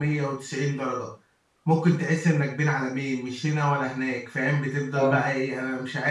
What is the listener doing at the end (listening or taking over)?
listening